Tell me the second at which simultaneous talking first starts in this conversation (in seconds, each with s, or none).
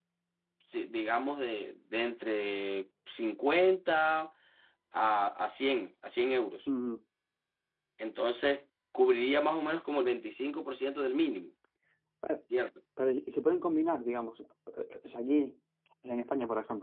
none